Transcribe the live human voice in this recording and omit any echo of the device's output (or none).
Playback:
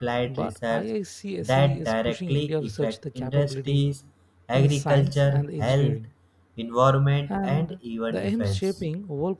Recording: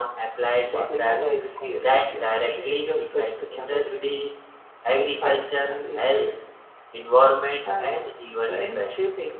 the place of the complementary